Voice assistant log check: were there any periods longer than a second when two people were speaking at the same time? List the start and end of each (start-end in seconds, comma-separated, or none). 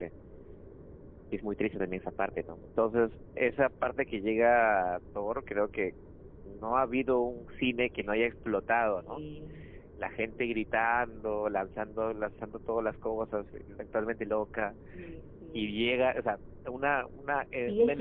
none